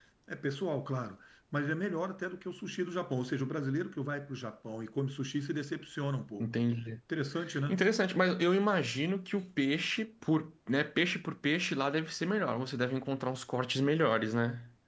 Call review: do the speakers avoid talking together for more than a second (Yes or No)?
Yes